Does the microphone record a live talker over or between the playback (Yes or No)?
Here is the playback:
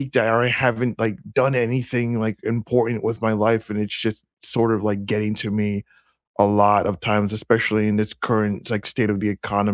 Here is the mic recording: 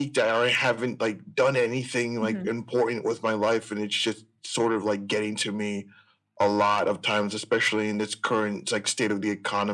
Yes